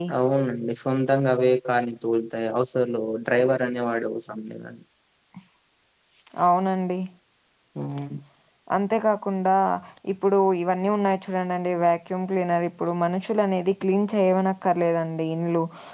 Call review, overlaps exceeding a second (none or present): none